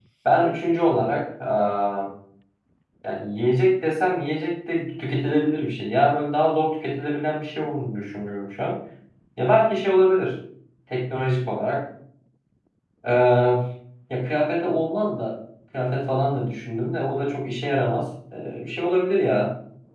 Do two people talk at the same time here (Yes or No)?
No